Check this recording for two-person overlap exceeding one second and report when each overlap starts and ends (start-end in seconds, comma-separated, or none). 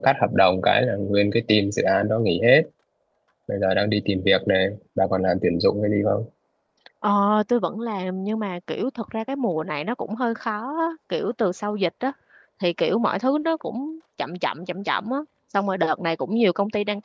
none